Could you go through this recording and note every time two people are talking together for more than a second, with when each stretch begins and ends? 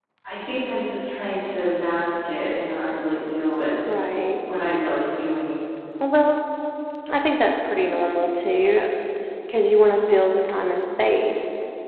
none

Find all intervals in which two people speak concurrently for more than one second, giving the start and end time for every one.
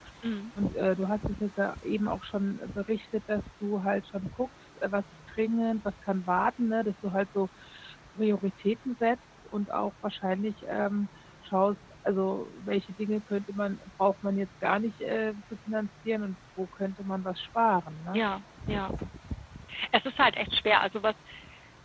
none

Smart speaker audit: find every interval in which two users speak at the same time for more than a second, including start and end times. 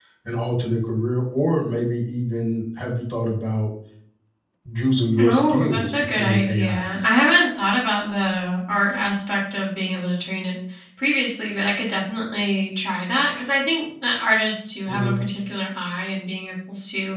5.2-6.8

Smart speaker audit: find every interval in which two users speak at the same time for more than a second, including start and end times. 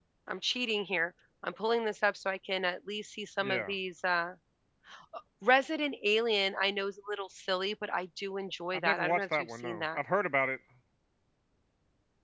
8.7-10.0

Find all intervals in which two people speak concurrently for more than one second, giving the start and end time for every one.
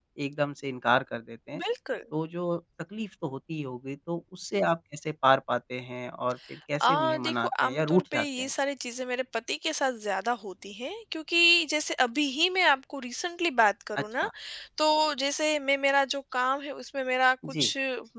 6.8-8.5

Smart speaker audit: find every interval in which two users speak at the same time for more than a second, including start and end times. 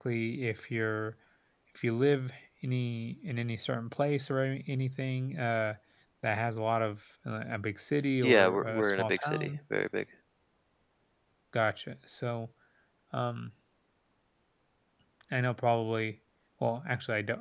8.2-9.5

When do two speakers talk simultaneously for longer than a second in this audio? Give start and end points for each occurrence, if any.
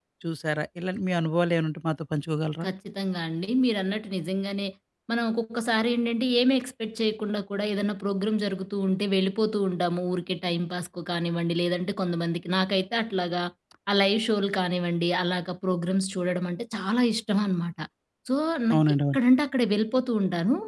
none

